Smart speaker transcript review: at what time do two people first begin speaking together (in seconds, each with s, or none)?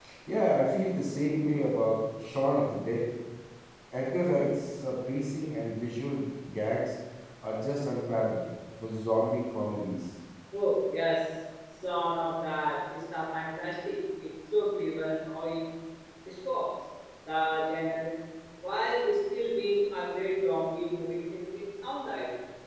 none